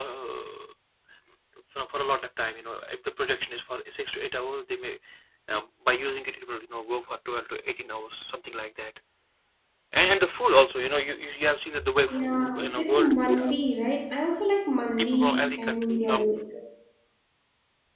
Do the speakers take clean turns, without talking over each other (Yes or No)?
No